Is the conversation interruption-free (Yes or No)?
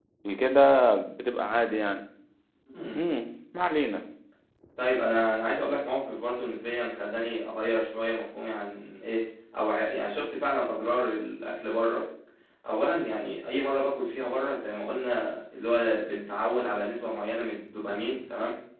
Yes